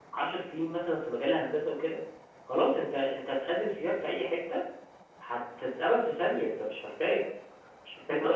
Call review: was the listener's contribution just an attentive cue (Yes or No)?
No